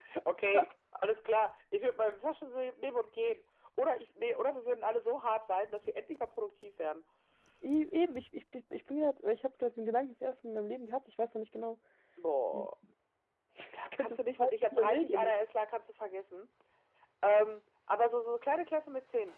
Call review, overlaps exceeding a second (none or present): present